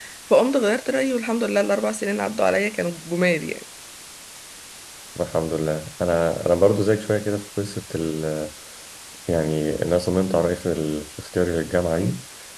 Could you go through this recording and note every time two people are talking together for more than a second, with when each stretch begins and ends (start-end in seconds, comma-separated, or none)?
none